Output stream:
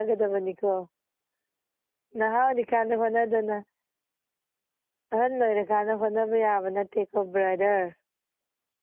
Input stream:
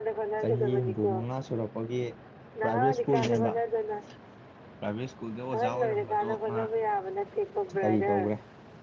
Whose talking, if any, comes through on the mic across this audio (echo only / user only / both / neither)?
both